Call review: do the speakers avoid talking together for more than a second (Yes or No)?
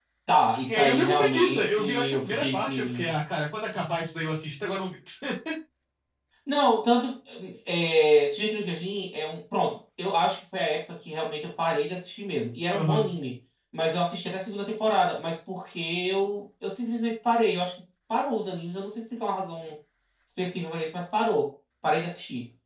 No